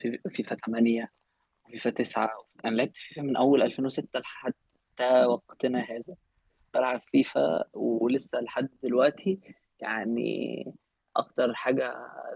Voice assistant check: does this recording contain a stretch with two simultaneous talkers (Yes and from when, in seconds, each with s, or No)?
No